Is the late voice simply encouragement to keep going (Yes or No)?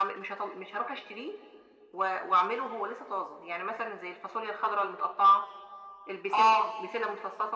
Yes